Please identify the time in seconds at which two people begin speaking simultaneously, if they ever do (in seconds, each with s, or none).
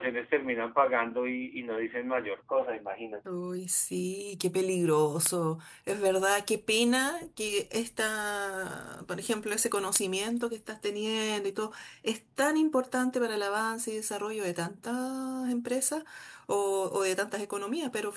none